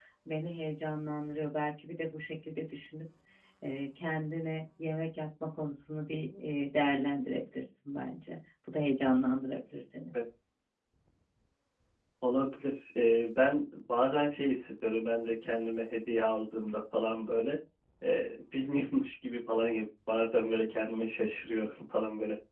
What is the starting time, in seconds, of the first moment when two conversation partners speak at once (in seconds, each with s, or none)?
none